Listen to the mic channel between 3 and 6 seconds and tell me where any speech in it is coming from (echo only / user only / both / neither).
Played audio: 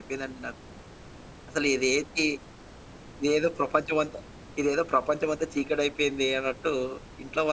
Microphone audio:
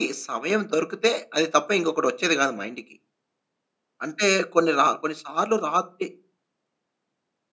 user only